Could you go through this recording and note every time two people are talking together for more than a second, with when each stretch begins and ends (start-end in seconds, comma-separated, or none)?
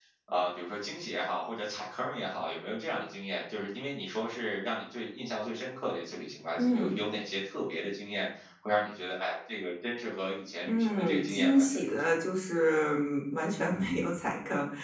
10.6-12.2